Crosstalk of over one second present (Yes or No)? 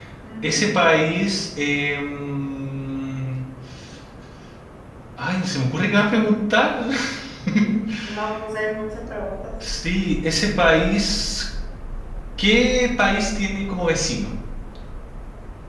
No